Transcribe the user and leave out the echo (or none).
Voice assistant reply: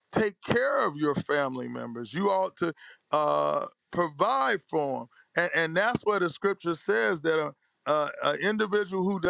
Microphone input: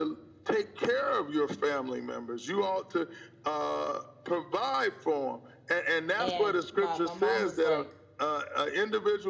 and my my mom was like